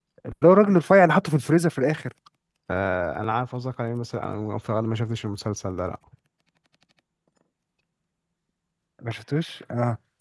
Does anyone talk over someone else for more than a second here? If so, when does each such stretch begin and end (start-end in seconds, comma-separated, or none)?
none